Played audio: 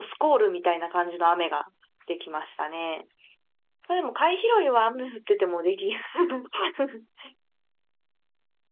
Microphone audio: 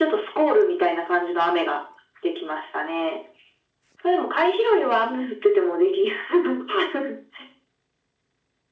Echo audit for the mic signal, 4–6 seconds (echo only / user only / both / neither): echo only